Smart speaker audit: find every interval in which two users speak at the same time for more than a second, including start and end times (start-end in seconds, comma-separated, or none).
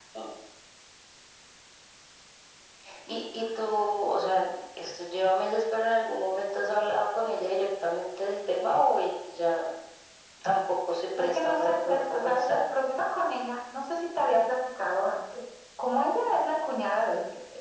11.2-12.6